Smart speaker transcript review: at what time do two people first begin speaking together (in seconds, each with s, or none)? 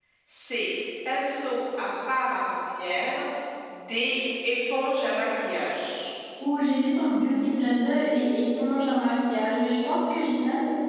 none